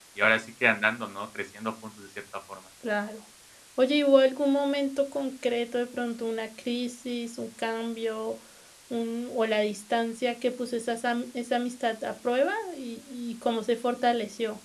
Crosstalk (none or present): none